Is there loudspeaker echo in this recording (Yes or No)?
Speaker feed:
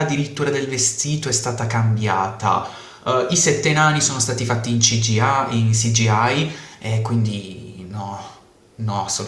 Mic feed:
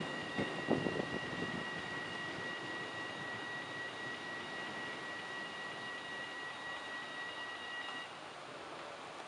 No